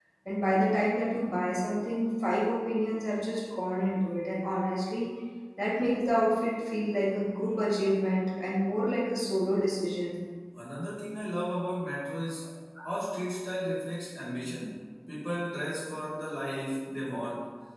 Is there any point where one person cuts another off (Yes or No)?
No